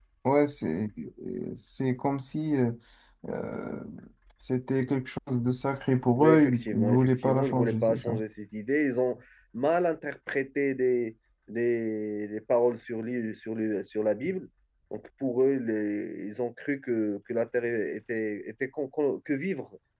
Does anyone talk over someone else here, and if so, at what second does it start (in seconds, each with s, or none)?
6.2 s